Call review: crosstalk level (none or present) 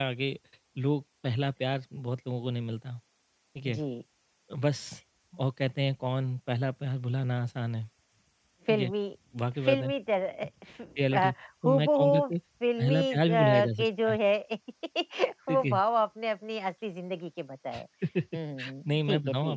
present